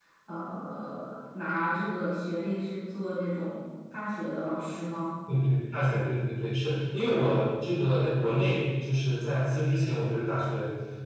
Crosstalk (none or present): none